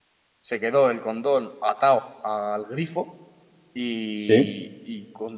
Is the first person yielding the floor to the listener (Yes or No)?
No